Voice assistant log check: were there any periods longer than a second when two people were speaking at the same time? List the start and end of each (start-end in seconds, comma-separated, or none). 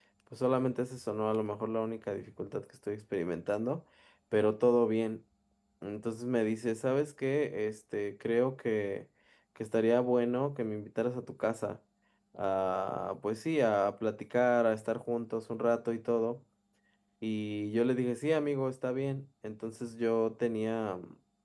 none